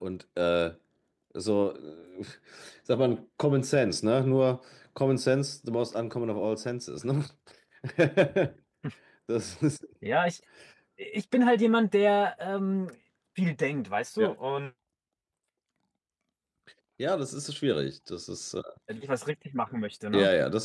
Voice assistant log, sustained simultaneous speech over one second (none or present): none